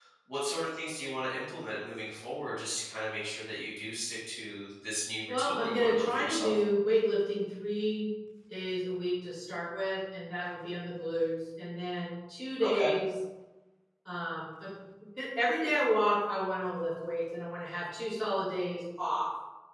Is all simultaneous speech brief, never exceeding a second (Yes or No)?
No